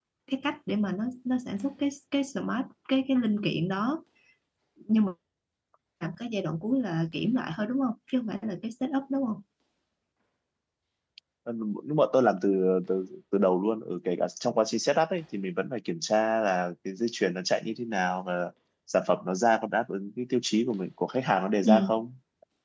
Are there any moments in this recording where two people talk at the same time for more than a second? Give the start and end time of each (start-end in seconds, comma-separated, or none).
none